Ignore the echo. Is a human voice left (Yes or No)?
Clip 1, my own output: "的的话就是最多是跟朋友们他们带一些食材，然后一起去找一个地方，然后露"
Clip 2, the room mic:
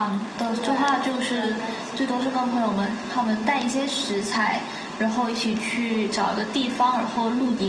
Yes